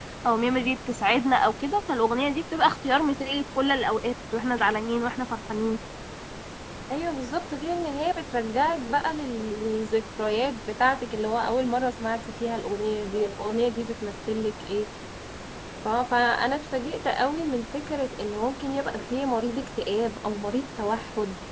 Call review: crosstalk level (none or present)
none